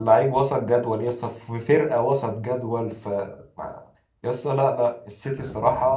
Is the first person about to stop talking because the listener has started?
No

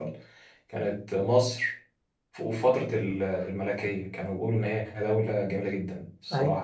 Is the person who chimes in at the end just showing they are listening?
No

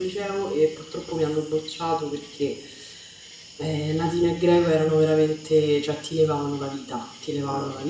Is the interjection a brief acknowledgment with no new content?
Yes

